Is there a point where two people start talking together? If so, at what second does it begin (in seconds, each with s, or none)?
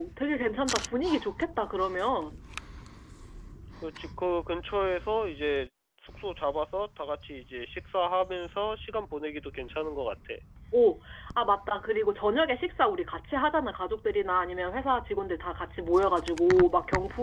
none